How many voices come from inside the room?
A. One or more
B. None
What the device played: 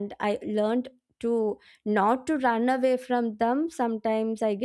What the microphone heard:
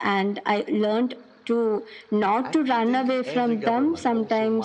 A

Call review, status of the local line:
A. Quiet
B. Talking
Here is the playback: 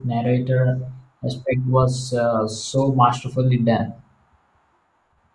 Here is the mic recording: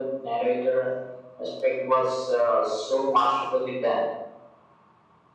A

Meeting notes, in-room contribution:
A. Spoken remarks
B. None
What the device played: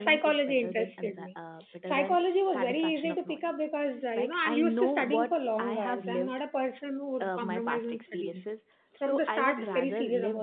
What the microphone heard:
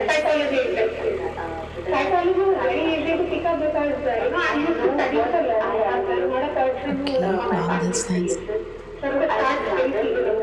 A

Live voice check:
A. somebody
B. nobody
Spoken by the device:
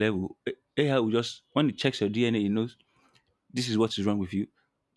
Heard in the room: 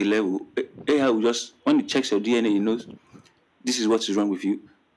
B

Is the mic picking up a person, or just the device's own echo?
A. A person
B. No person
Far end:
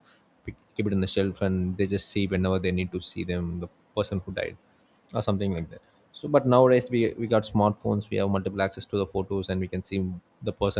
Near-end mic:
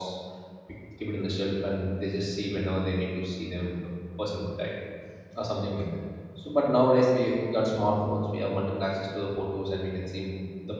B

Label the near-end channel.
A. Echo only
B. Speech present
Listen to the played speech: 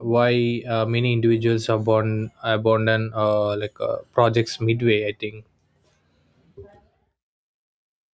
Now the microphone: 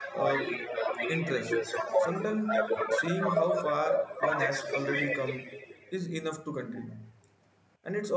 B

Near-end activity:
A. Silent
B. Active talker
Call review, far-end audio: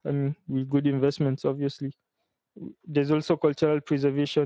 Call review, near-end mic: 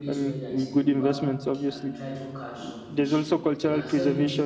B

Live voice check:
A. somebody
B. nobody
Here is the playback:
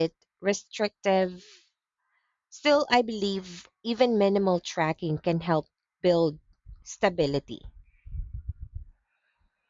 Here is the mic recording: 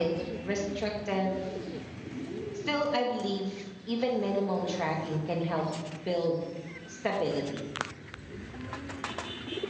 B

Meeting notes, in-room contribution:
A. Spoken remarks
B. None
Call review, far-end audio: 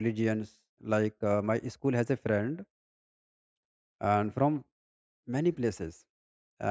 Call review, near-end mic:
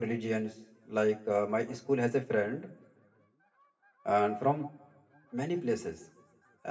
B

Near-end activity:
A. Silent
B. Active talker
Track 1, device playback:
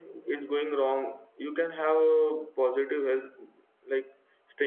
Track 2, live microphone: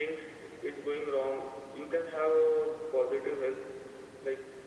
A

